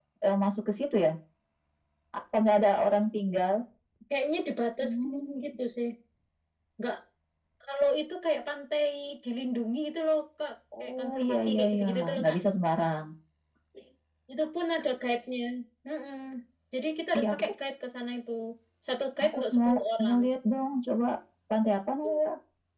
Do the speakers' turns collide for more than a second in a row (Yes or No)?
Yes